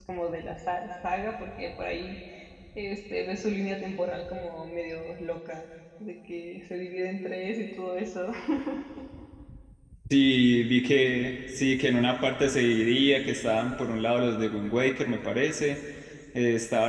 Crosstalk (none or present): none